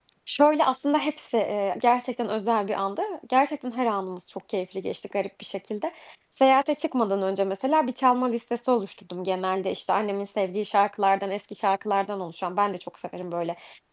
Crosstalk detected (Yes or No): No